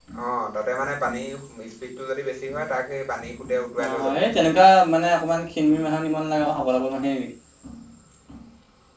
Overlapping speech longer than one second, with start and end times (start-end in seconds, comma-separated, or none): none